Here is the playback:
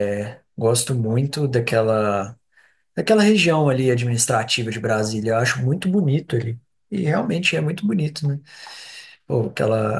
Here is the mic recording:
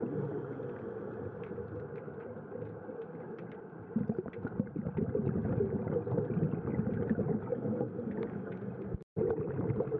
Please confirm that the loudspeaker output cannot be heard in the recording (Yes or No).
Yes